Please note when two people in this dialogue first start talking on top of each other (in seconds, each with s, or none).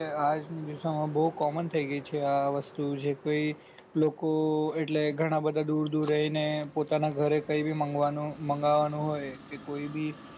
none